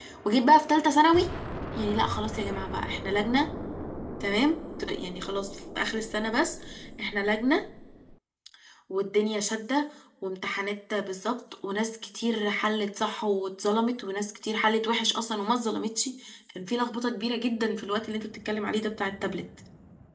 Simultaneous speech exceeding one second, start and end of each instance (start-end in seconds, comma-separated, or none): none